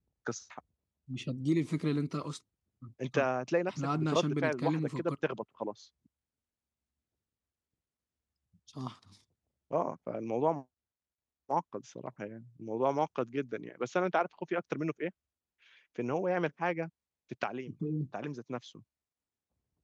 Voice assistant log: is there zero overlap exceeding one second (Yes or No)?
No